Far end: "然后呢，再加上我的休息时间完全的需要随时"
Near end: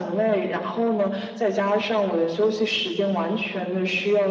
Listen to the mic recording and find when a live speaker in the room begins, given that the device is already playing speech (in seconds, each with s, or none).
none